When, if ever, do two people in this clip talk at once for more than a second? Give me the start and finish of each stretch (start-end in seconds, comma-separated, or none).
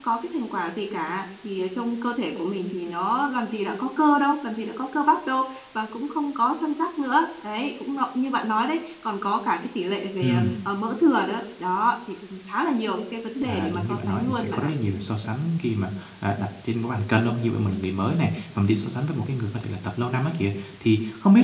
13.4-14.7